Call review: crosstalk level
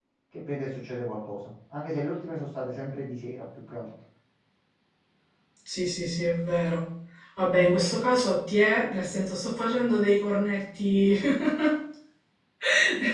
none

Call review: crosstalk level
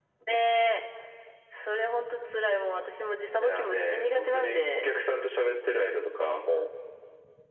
present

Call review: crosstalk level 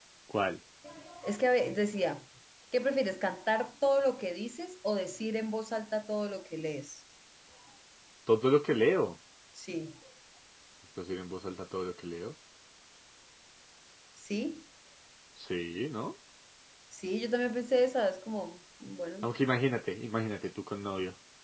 none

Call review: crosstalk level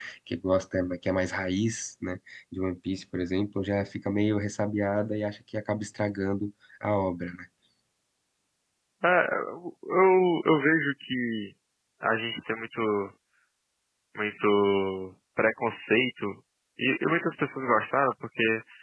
none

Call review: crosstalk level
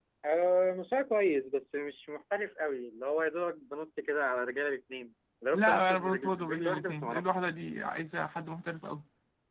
present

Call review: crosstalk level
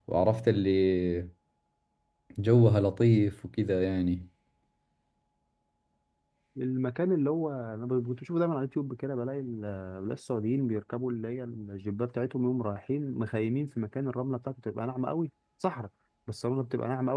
none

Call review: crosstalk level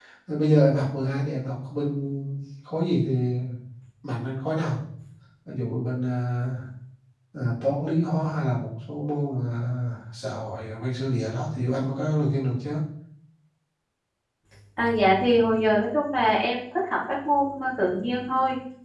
none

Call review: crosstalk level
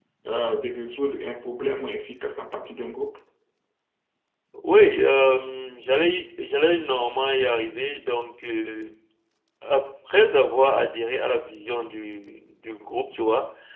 none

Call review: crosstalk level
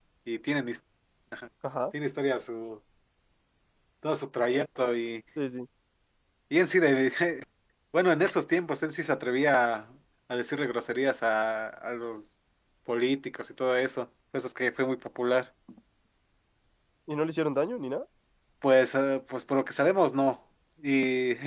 none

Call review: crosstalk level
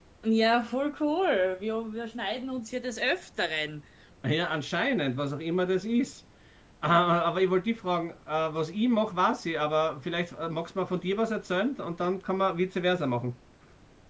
none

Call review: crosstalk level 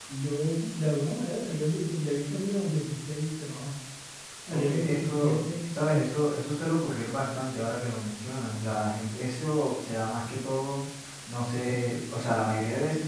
present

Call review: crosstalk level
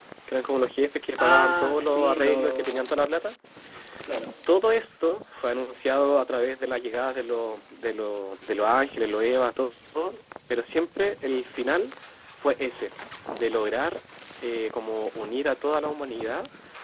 present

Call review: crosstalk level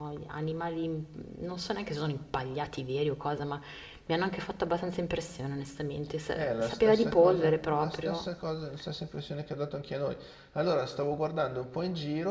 present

